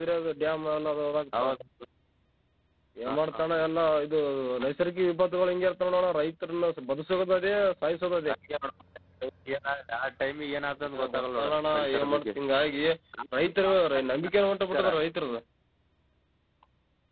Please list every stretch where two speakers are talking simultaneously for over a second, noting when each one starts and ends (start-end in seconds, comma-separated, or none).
10.9-12.2